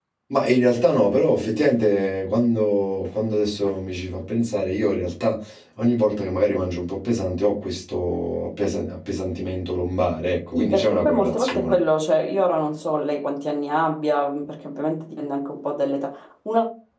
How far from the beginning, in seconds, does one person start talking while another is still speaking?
10.5 s

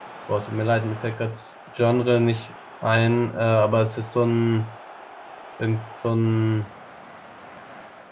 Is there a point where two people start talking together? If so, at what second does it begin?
none

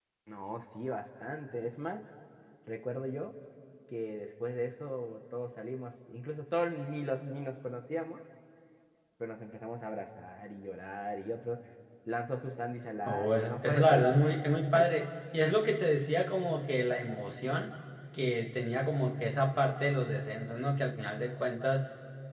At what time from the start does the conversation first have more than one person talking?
13.1 s

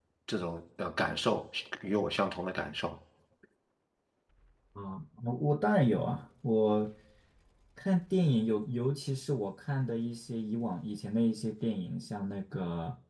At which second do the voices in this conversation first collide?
none

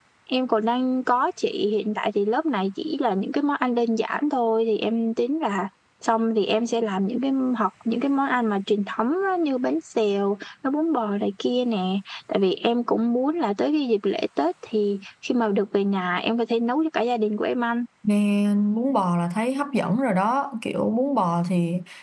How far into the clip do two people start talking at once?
none

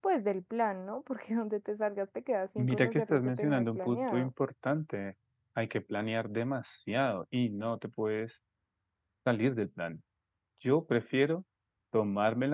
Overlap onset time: 2.6 s

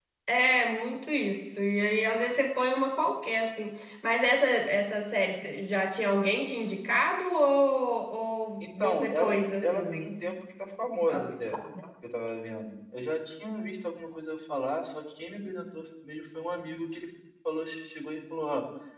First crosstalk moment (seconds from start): 8.6 s

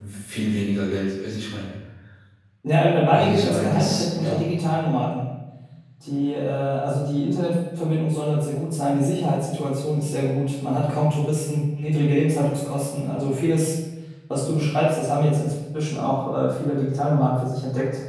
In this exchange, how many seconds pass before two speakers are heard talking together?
3.1 s

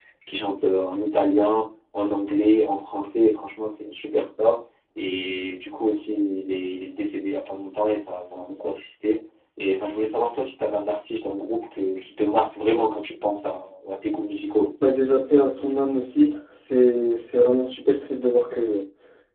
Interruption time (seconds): none

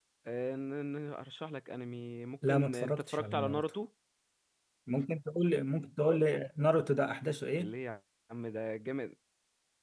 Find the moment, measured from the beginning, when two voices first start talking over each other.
2.4 s

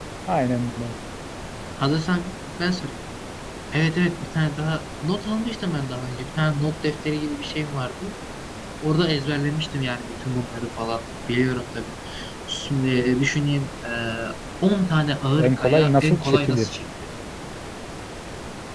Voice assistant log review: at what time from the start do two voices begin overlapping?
15.4 s

